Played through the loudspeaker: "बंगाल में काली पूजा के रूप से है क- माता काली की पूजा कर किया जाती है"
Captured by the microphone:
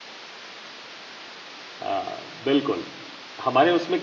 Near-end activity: present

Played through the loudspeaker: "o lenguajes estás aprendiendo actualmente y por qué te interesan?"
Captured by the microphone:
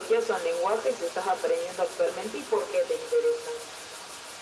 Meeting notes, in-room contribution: none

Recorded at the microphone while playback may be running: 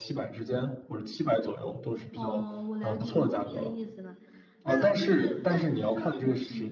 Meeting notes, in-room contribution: present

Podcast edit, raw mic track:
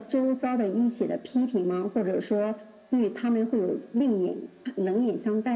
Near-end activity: none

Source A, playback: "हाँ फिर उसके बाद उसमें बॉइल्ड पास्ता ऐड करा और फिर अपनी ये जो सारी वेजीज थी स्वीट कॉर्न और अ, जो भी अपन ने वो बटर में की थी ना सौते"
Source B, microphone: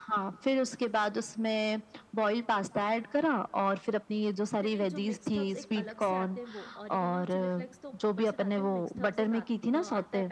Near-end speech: present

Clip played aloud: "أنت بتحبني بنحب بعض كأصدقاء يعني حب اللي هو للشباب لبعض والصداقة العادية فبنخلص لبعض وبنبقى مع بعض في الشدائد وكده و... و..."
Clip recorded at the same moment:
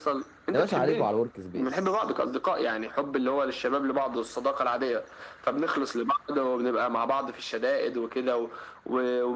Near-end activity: present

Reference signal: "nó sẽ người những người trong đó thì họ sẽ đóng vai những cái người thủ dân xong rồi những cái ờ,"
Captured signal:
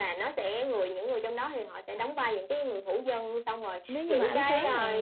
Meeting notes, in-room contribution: present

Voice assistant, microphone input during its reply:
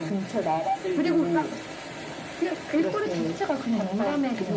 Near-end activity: none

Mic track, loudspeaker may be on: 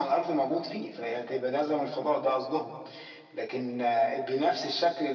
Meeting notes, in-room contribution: none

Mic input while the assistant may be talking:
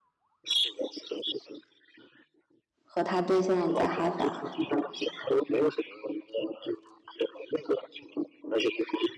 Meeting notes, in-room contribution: present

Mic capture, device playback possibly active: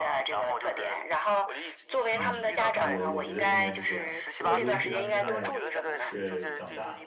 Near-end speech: present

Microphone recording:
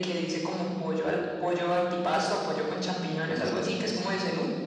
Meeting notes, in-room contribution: present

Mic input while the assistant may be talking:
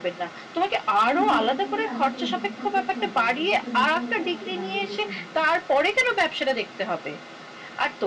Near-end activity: present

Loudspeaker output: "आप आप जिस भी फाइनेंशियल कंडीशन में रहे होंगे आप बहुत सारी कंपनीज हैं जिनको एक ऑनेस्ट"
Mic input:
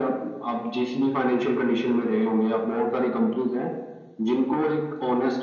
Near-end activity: none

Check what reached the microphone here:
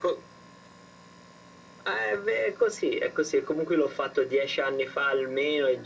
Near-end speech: none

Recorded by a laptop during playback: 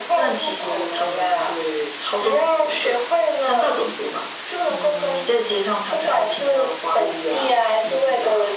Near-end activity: none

